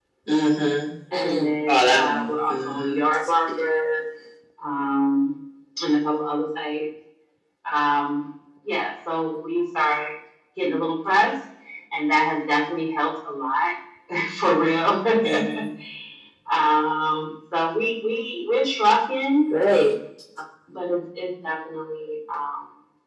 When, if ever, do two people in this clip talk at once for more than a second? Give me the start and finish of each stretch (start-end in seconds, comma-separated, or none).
1.1-3.0